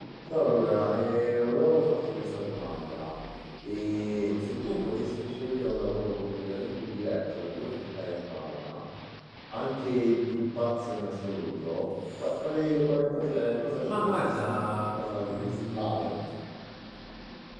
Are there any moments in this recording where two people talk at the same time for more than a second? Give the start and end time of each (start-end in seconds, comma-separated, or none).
13.8-16.1